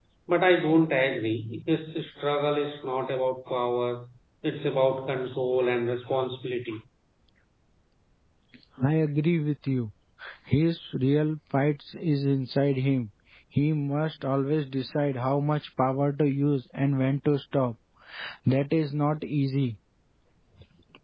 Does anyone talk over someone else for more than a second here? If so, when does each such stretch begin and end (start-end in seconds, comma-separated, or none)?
none